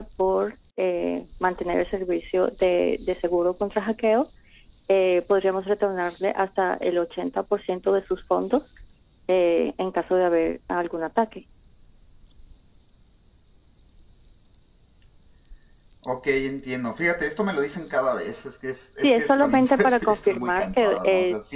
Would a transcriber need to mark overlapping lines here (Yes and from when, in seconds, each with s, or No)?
Yes, from 19.0 s